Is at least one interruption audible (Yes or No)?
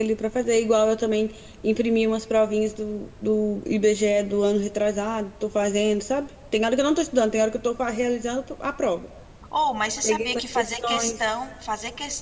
Yes